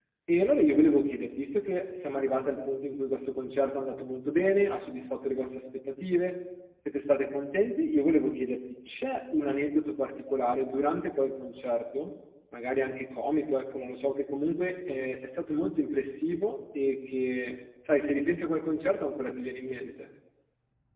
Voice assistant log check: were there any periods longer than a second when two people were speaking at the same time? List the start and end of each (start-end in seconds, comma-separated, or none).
none